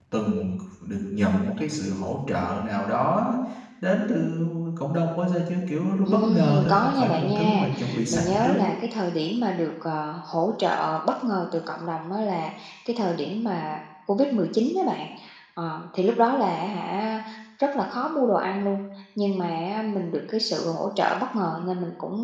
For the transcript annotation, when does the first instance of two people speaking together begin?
6 s

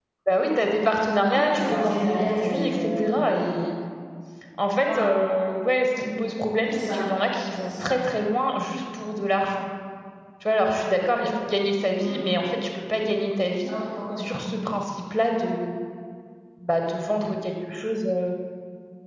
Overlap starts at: 1 s

